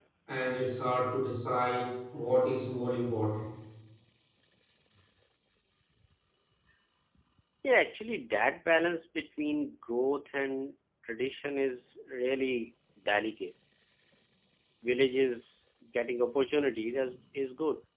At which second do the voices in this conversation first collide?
none

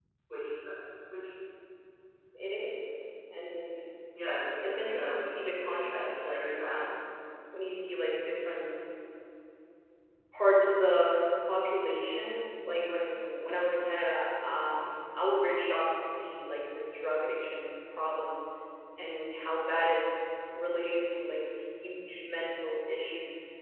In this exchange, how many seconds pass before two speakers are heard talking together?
4.6 s

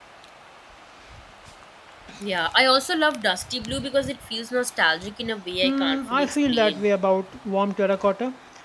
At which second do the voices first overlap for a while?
5.6 s

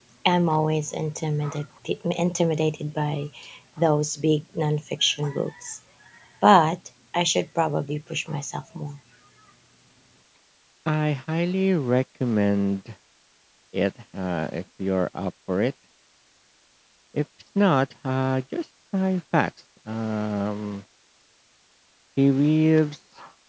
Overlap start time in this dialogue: none

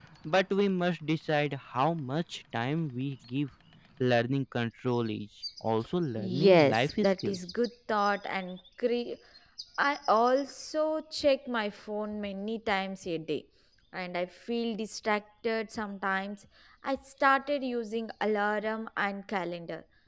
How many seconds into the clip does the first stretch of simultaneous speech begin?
6.2 s

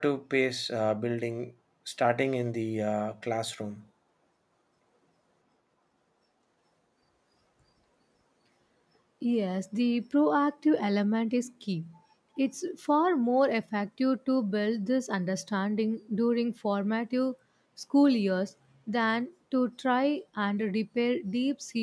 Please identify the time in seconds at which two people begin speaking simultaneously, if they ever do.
none

